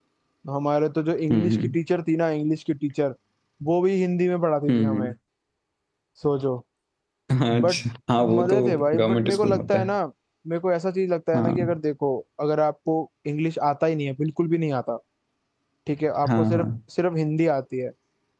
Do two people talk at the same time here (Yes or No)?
Yes